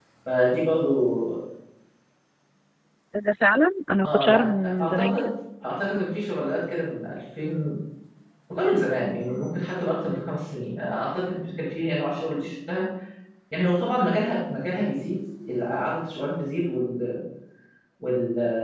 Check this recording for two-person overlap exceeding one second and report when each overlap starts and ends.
4.0-5.3

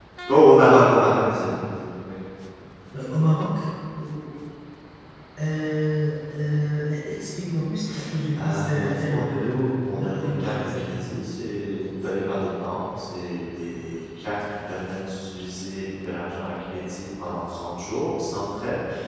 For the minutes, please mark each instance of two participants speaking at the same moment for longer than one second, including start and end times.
8.3-10.8

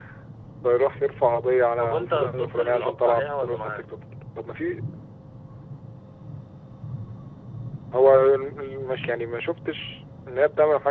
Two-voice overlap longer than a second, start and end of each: 1.8-3.9

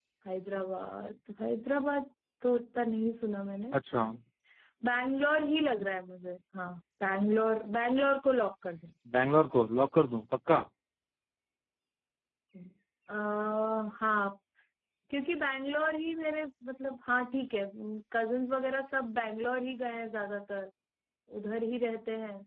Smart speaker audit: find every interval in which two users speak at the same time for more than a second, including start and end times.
none

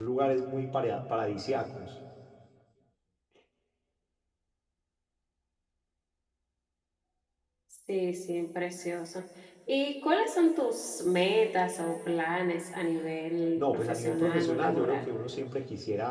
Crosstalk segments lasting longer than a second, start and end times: 13.6-15.0

